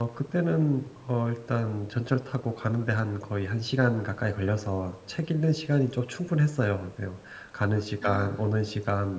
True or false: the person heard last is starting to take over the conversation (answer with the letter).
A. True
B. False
B